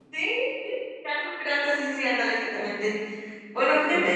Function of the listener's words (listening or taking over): listening